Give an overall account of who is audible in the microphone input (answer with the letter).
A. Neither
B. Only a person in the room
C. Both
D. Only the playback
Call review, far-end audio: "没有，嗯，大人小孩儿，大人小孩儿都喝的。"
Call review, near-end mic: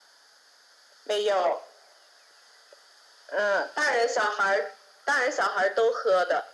D